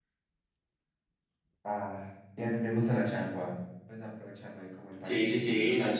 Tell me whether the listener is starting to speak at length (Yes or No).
Yes